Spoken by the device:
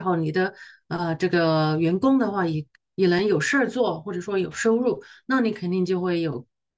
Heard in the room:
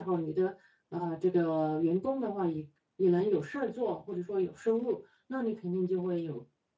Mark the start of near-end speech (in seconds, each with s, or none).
none